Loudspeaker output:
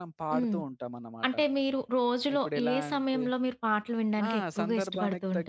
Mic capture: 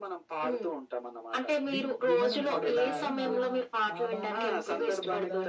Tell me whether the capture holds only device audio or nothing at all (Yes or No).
No